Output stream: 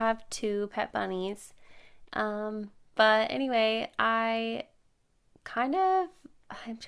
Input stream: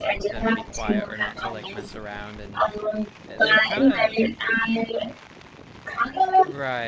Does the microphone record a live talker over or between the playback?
Yes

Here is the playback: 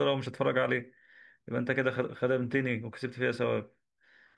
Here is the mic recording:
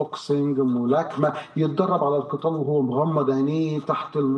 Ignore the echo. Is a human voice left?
Yes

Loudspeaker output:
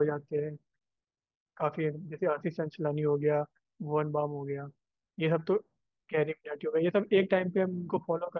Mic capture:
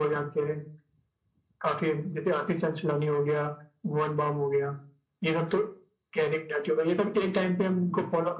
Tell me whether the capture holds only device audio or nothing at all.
Yes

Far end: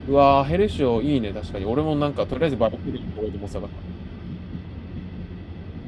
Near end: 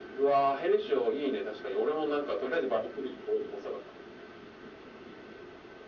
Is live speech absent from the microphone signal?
Yes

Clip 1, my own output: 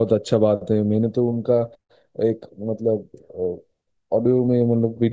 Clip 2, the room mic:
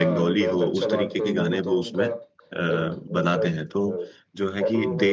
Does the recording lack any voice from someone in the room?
No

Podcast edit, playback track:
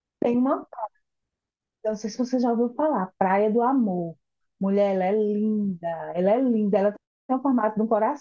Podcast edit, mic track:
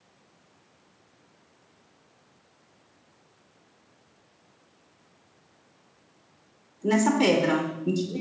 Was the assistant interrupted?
Yes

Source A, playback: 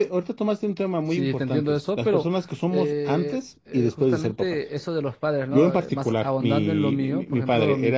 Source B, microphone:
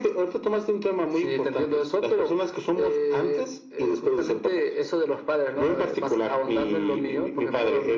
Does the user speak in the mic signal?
No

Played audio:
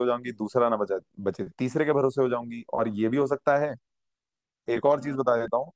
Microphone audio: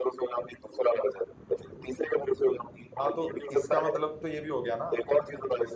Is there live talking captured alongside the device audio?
Yes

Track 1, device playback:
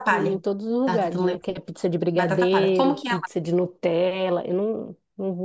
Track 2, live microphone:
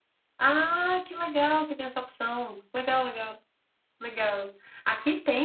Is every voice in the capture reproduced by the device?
No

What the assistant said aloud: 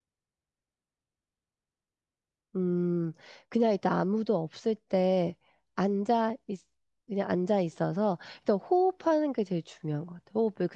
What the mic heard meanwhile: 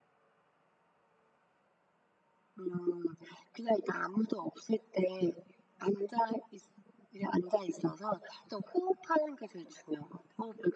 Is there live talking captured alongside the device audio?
No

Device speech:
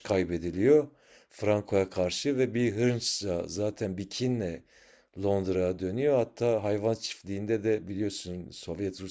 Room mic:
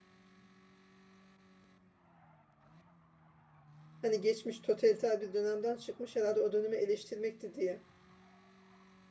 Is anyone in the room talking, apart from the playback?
Yes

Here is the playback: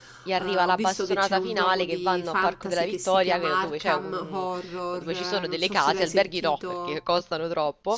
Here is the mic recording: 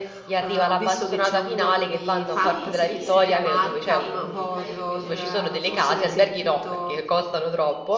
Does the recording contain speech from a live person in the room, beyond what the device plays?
Yes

